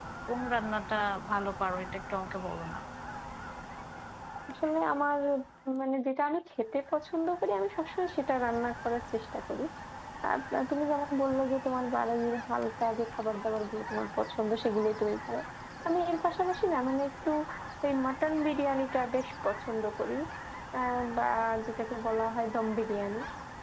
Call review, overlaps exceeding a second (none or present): none